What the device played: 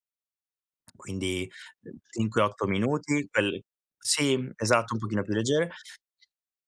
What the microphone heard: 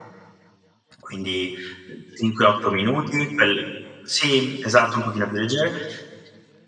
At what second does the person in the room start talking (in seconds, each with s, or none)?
none